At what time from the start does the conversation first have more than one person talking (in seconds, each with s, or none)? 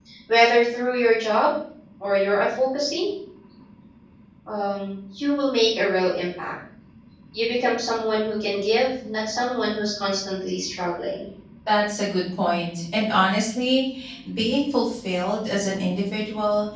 none